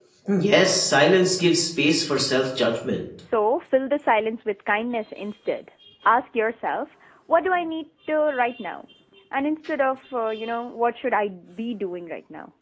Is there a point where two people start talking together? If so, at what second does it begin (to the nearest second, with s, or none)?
none